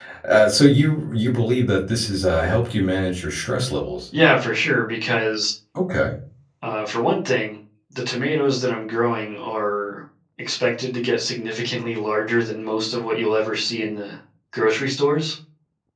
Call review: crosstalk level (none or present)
none